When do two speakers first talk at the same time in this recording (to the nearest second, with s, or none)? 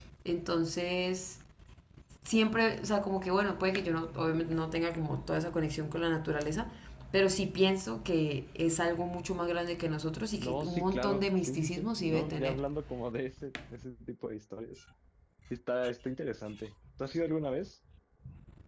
10 s